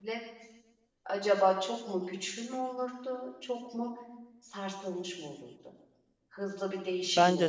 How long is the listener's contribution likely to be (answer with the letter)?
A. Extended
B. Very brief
A